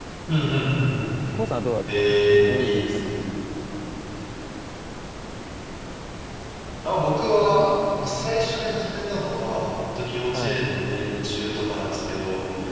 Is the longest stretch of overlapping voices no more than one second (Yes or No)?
No